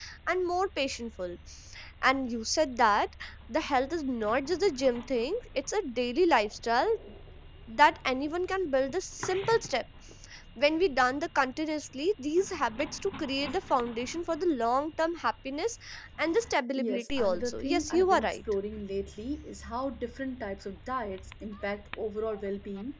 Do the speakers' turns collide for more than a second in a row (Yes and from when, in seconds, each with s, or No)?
Yes, from 16.8 s